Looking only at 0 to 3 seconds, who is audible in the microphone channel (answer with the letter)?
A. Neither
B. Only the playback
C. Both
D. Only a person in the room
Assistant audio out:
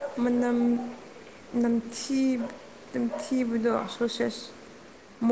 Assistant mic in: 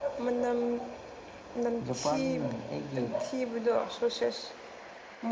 C